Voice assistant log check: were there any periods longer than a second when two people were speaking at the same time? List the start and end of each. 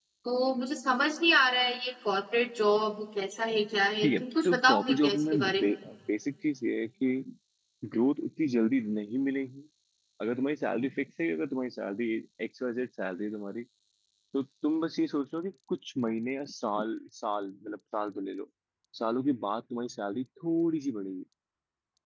4.0-5.7

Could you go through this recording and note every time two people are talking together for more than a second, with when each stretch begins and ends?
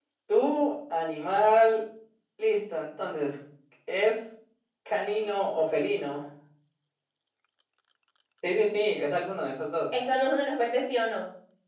none

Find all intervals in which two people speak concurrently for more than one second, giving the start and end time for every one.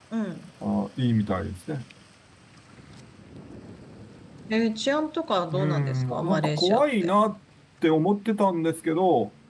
5.5-7.1

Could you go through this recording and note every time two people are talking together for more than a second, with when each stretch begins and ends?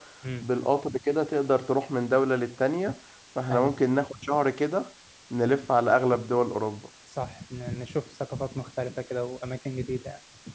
none

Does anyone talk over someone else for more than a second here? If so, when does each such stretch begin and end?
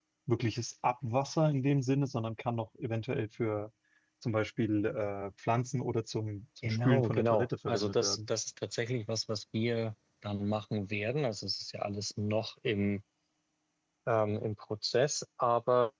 6.6-8.2

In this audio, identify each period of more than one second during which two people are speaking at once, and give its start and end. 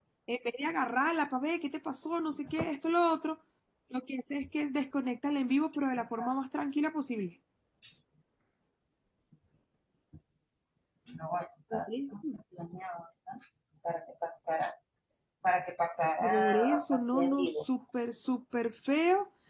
16.2-17.5

